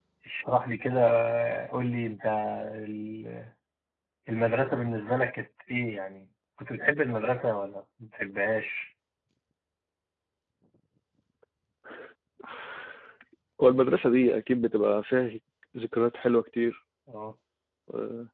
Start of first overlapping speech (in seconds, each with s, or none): none